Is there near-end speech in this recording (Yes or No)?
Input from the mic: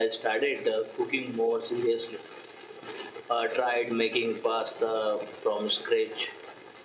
No